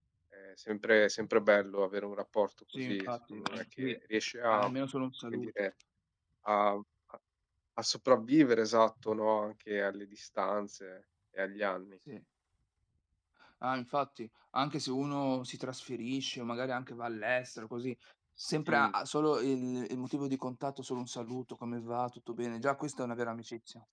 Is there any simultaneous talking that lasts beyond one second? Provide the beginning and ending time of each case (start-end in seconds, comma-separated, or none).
2.7-4.0